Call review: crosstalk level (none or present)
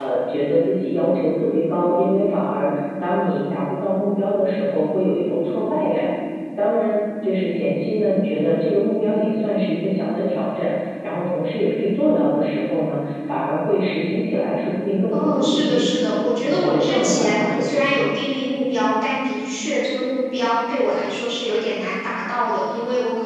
present